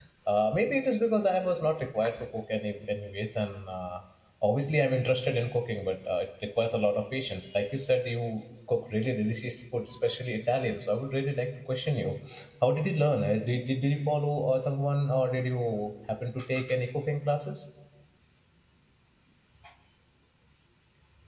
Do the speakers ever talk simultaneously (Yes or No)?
No